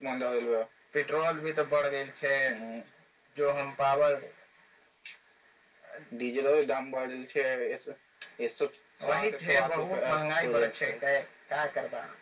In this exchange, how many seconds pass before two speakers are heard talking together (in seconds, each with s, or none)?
9.1 s